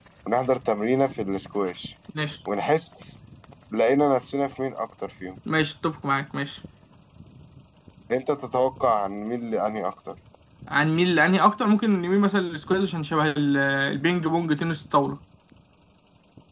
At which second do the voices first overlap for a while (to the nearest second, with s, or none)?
none